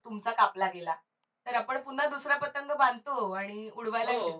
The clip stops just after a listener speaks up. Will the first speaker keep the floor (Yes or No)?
Yes